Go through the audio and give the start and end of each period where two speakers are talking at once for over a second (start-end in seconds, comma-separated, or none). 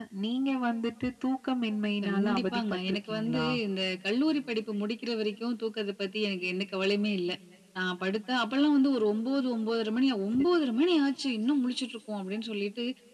2.0-3.5